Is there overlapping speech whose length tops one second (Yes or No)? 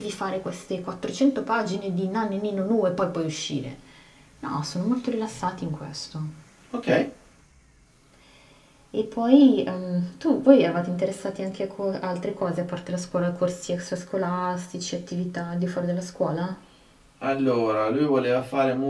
No